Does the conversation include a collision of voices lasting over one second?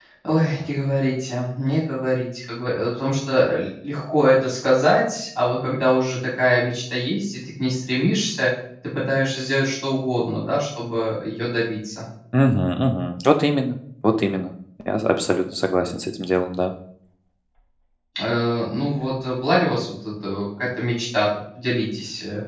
No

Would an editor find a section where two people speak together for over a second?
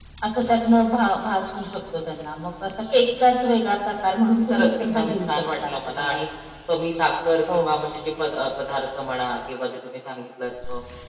Yes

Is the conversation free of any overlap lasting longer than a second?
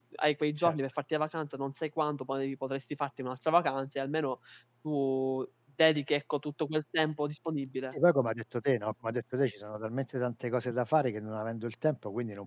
Yes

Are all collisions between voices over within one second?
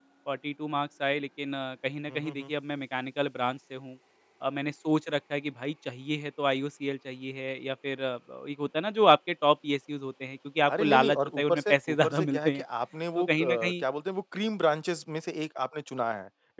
No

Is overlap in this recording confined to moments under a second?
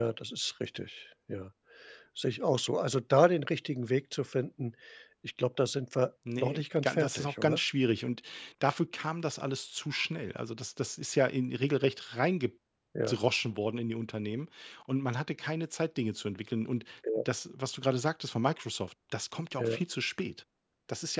No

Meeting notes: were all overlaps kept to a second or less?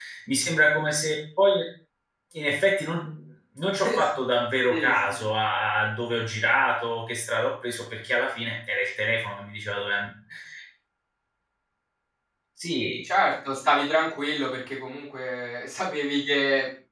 Yes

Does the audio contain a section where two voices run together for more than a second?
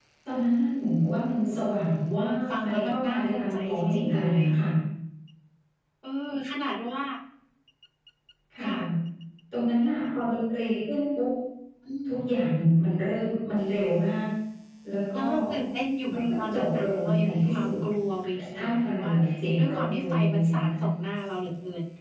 Yes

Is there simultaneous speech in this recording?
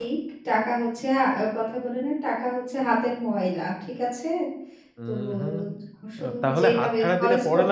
Yes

